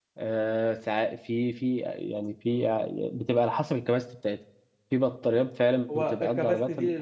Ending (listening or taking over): taking over